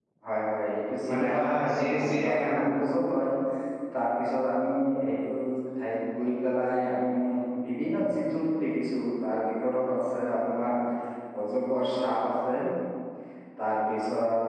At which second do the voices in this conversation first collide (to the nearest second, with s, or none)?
1 s